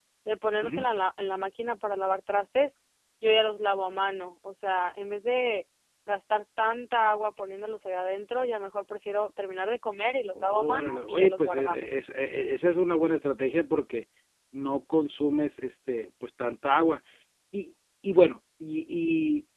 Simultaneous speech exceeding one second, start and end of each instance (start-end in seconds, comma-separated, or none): 10.3-11.8